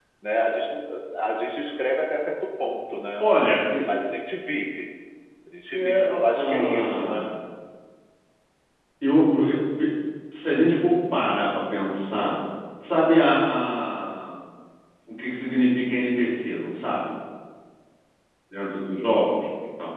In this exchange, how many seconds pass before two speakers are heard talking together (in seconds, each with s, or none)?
5.7 s